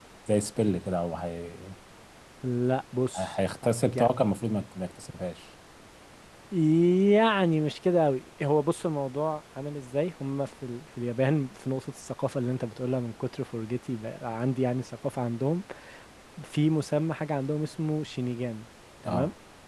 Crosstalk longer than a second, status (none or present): none